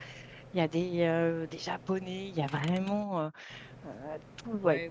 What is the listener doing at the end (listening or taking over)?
listening